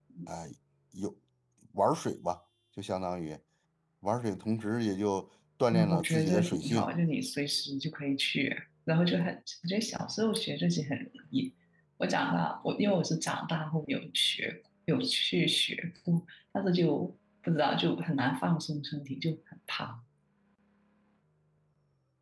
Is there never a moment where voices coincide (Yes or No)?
No